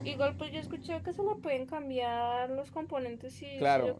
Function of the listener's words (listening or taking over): taking over